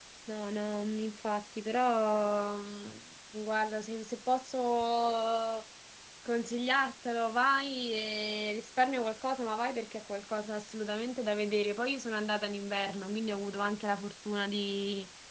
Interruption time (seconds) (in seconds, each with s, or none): none